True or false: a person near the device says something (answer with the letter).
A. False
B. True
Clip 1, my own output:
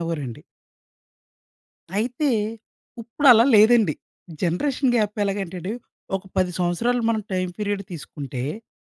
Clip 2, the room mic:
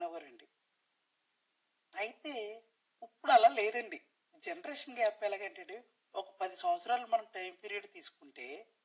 A